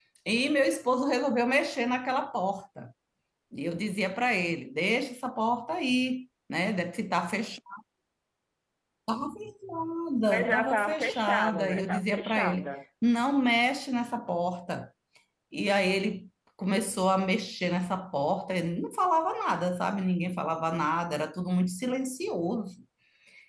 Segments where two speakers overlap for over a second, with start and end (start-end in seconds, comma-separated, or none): 10.3-12.7